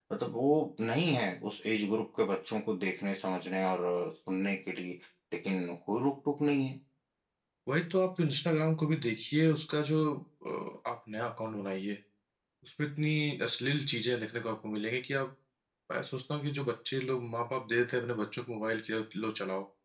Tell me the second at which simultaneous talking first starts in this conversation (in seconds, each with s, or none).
none